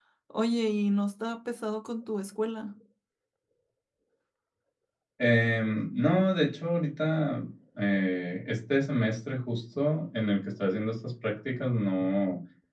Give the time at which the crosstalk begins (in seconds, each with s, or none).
none